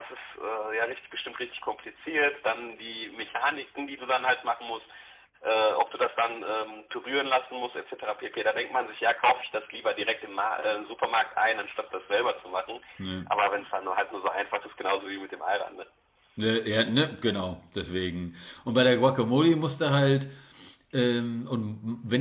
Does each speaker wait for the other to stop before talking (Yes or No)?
Yes